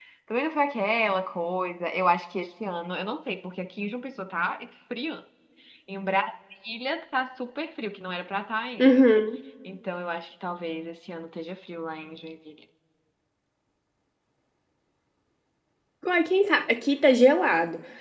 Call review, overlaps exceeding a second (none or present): none